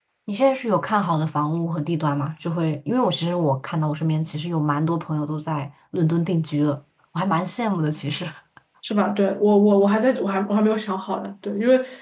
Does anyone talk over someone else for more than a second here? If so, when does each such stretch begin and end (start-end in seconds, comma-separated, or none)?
none